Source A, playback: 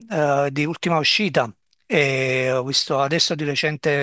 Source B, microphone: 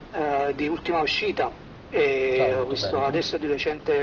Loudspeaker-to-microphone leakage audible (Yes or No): Yes